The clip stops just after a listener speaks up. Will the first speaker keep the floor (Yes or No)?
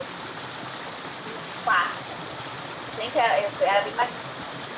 Yes